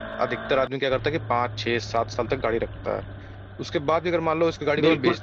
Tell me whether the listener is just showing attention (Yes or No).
No